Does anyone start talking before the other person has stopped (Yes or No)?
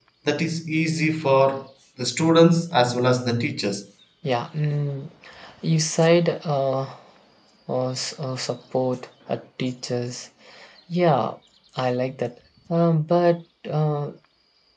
No